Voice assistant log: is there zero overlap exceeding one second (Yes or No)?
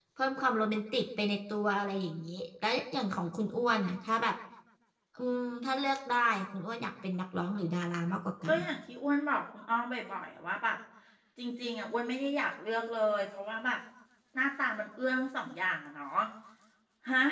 Yes